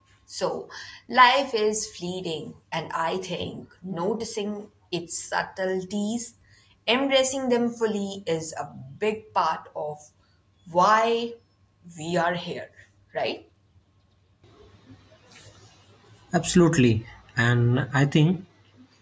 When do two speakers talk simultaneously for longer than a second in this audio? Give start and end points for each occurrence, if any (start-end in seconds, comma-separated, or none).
none